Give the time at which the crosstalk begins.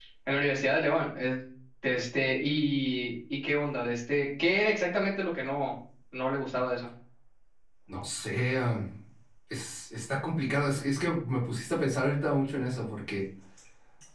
none

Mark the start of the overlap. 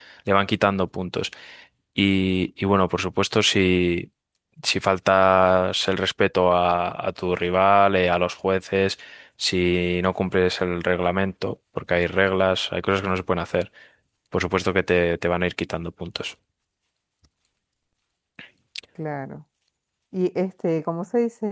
none

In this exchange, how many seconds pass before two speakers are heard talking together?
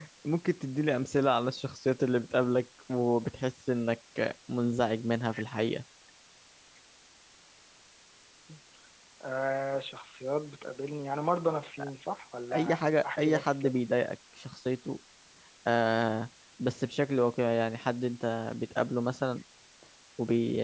12.5 s

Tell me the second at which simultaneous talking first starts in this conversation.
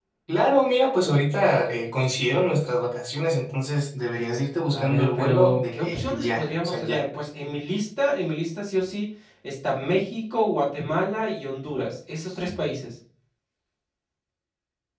4.7 s

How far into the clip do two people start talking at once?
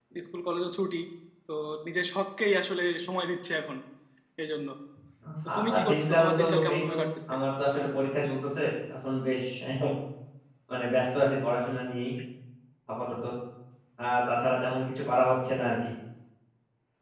5.6 s

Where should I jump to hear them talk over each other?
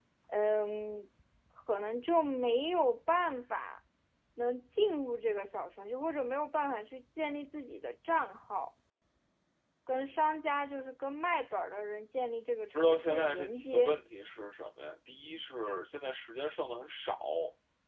12.7 s

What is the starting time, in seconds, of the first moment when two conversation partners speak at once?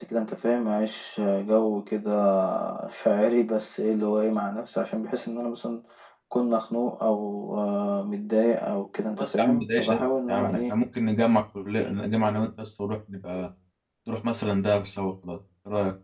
9.2 s

